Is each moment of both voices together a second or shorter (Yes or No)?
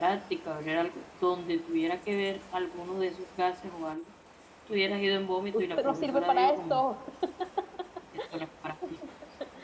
No